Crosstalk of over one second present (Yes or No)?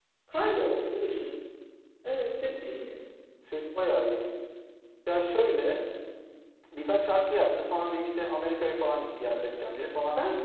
No